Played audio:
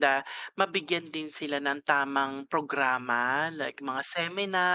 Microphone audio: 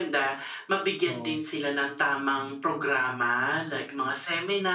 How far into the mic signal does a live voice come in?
1.0 s

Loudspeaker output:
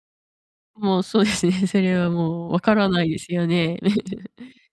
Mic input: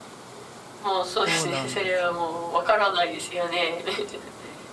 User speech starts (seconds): 1.2 s

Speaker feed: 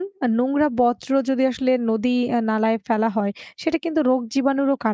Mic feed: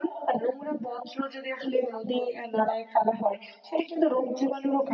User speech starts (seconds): none

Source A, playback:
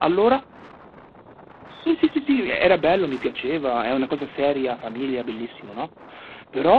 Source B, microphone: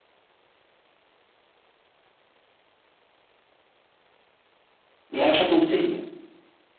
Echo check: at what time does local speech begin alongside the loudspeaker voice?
5.1 s

